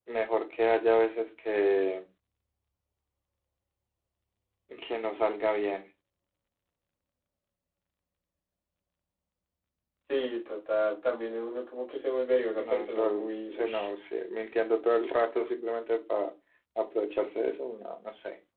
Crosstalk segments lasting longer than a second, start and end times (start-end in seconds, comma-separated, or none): 12.6-13.9